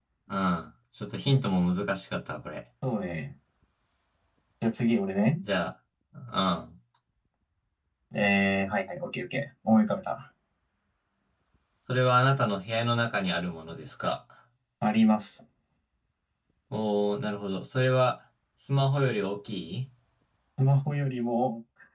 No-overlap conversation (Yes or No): Yes